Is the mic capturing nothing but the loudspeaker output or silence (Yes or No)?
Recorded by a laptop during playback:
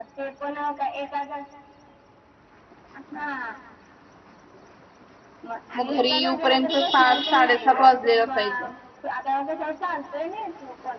No